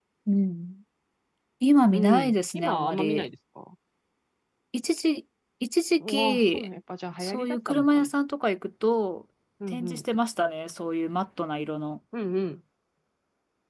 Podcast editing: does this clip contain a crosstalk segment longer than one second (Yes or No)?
Yes